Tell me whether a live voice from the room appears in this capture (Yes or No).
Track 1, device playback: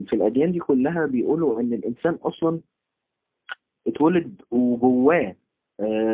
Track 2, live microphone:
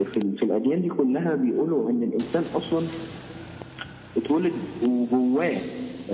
No